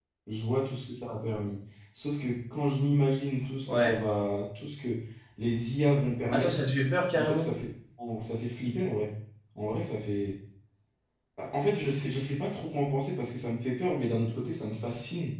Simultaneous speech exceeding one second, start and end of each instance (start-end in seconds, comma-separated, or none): none